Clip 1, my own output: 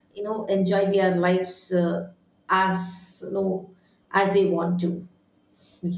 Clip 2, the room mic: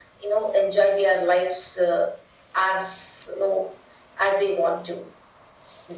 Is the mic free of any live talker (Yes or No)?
Yes